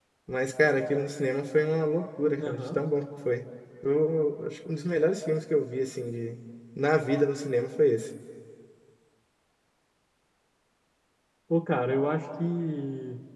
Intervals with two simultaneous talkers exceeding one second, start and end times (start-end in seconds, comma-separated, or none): none